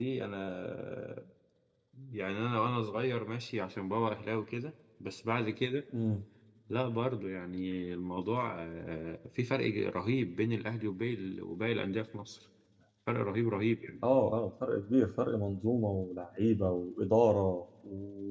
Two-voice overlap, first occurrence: none

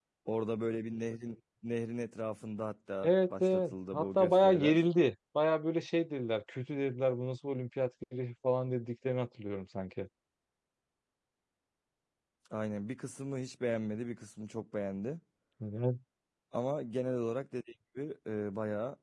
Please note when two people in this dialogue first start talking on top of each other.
3.0 s

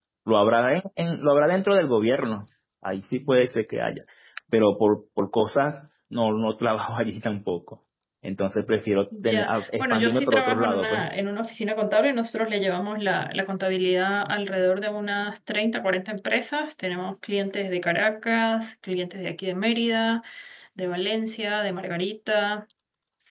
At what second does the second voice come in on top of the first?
9.1 s

